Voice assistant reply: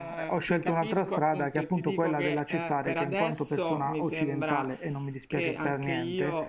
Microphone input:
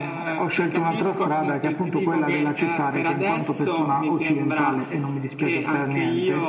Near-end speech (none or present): none